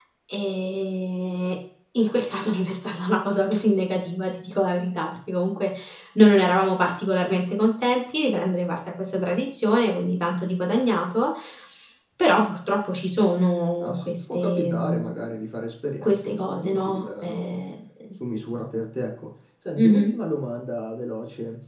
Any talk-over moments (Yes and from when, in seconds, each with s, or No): Yes, from 13.8 s